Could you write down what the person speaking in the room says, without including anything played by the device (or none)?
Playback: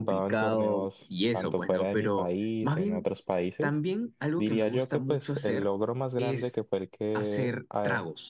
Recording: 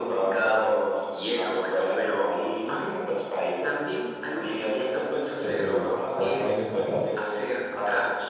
¿qué te digo?, cuatro años atrás